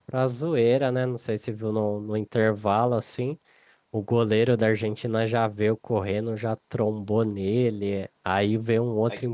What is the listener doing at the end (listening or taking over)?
listening